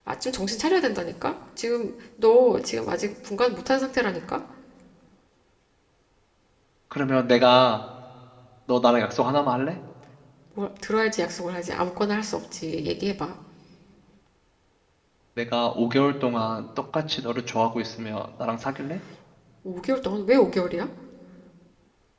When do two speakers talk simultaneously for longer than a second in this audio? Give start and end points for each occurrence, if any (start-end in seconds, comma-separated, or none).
none